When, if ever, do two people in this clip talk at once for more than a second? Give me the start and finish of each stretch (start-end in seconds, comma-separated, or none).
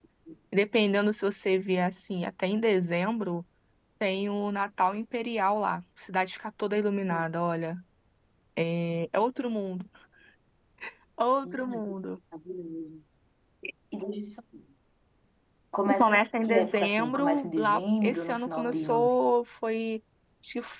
16.0-19.1